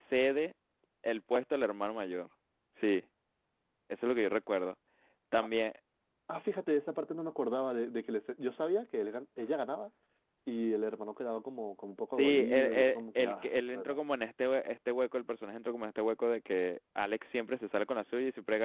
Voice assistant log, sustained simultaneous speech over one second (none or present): present